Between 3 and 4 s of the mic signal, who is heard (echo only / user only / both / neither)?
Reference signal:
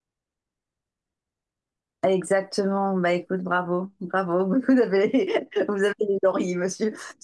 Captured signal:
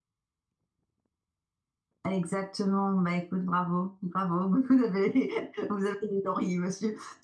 echo only